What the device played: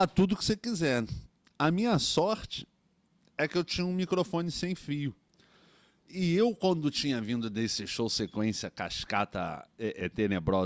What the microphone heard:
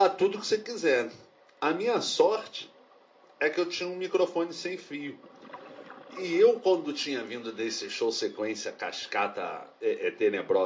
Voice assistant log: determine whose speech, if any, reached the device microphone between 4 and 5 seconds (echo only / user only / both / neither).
echo only